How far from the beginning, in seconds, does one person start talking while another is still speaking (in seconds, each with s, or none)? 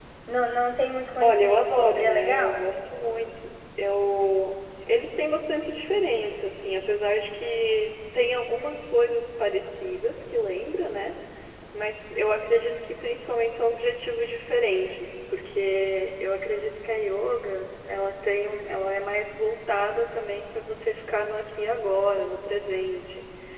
1.2 s